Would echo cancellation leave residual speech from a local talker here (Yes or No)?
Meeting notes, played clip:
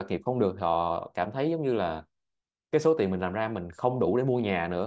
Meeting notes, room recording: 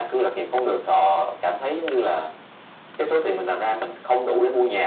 No